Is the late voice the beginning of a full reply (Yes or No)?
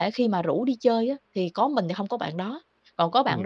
No